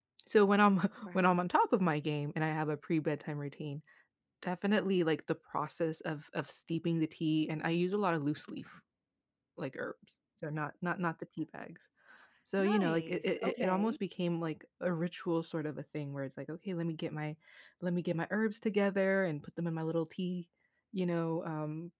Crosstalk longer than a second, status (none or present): present